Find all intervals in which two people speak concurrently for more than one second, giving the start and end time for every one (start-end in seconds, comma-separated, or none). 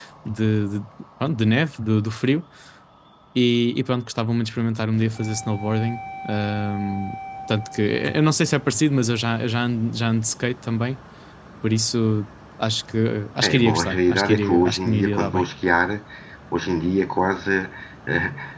13.4-15.4